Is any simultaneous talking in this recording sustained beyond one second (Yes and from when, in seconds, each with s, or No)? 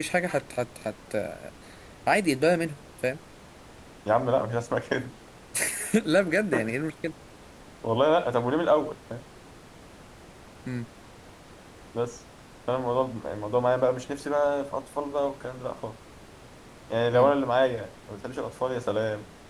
No